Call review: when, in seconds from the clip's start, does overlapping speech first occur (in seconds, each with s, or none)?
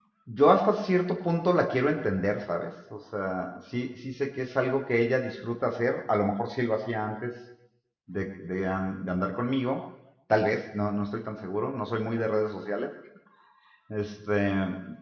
none